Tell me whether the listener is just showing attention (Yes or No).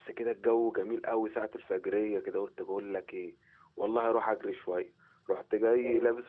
Yes